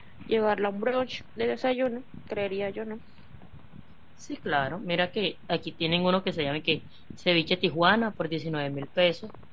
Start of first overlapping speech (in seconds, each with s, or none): none